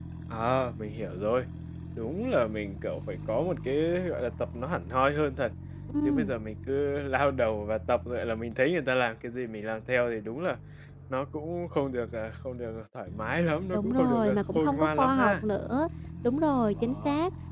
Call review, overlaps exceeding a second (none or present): present